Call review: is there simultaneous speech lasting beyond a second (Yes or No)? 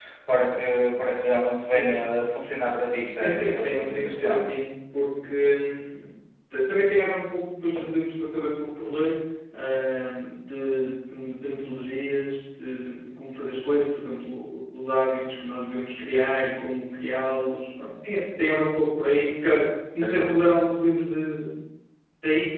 Yes